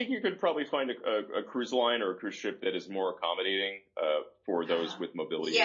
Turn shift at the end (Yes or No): Yes